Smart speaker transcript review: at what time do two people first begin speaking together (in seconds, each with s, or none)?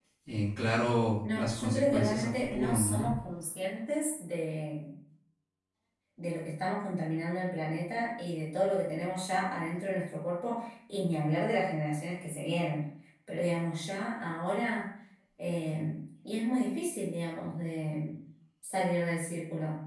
1.2 s